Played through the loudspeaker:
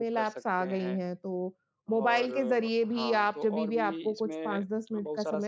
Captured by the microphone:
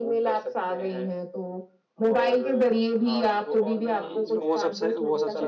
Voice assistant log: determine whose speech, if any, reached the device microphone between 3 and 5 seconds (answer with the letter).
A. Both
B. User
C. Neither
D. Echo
A